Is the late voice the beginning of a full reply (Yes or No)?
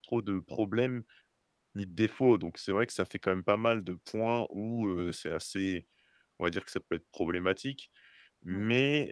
No